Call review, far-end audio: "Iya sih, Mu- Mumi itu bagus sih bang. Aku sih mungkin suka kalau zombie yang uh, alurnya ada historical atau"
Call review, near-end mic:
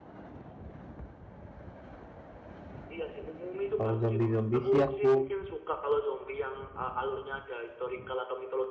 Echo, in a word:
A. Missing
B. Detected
B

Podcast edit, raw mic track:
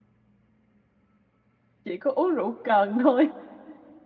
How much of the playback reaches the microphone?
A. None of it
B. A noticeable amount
A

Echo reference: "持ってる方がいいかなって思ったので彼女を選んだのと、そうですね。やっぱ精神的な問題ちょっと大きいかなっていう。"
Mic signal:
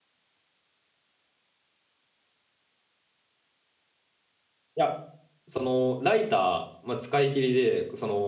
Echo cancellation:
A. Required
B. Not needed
B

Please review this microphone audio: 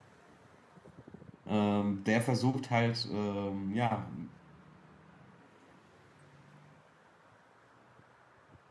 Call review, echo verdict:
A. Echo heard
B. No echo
B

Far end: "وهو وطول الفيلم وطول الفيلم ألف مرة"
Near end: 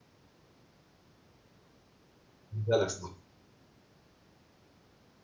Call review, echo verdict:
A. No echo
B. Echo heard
A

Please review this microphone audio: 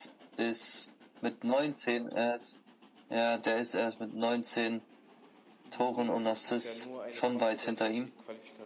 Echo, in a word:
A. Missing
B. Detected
B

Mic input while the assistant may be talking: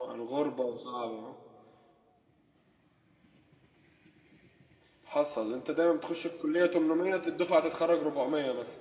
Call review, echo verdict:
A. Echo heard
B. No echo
B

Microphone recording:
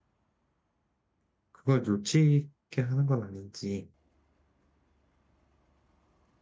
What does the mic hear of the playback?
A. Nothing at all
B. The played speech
A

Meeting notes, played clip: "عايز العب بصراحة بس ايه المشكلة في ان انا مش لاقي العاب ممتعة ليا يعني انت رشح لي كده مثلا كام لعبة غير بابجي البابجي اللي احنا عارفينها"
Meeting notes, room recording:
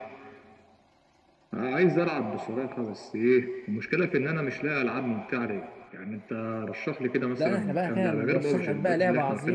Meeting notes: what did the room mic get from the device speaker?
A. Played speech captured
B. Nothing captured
A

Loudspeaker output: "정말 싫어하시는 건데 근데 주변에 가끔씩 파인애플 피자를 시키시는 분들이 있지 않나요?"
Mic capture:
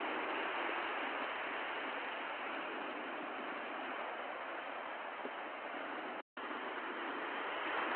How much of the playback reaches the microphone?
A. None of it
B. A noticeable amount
A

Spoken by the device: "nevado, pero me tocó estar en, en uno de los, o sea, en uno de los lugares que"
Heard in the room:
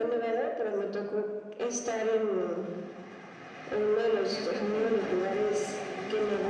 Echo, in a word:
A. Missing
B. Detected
B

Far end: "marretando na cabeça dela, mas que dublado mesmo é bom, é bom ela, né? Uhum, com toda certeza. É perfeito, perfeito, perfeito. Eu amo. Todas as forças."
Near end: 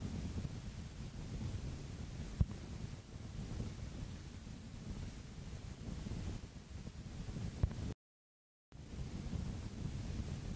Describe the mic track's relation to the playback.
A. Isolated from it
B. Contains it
A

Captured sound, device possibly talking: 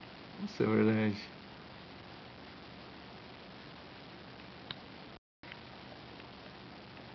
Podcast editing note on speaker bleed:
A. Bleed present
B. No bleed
B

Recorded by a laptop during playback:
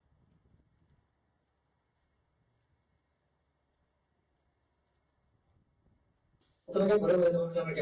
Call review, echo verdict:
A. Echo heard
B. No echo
B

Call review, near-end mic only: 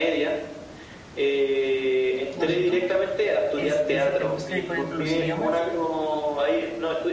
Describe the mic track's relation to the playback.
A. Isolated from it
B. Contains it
B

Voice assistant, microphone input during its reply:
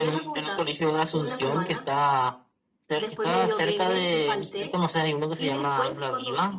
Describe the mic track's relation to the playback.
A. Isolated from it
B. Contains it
B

